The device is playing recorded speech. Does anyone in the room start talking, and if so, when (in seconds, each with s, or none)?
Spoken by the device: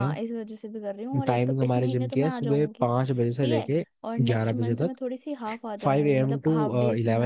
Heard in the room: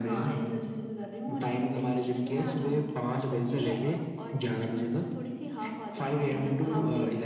2.4 s